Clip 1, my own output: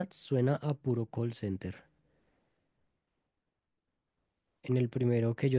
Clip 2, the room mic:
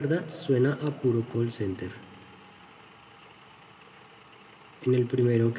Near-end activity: none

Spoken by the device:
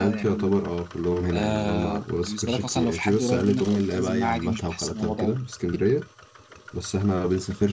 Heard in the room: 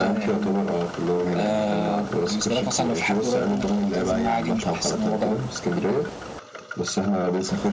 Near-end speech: none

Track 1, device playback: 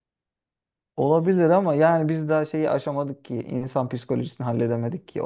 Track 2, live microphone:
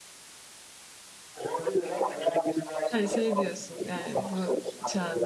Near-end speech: present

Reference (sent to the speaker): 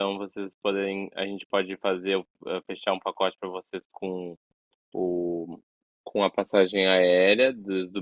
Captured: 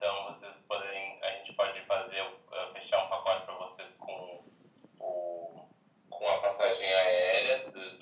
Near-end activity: none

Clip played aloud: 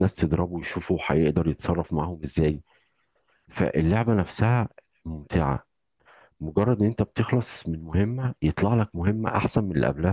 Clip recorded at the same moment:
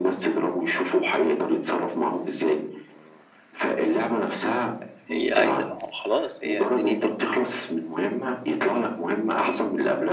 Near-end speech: present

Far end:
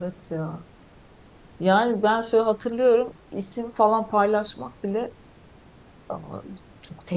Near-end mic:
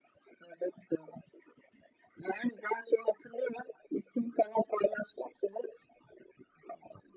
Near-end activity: none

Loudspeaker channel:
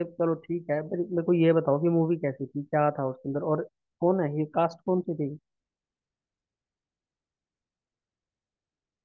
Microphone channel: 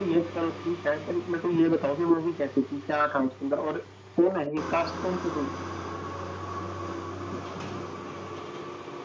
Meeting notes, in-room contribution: none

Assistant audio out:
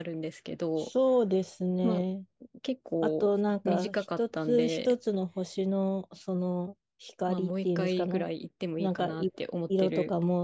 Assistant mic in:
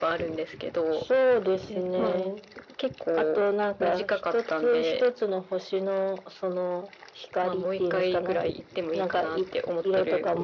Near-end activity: present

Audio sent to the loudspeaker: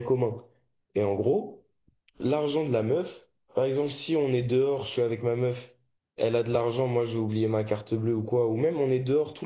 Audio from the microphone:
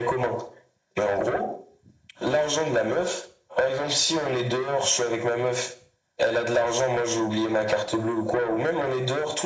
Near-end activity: none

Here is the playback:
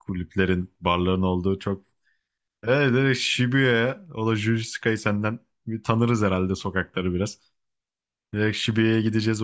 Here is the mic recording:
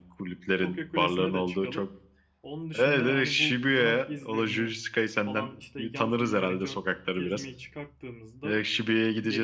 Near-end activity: present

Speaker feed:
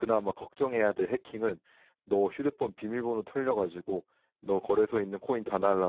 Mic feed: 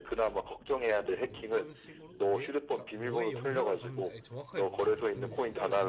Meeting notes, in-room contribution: present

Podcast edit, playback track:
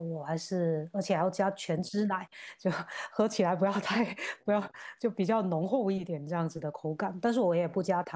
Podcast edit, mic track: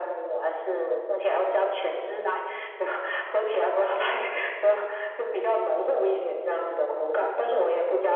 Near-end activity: none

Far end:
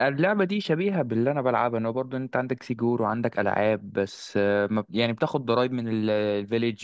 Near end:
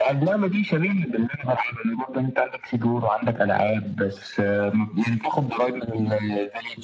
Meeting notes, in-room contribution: none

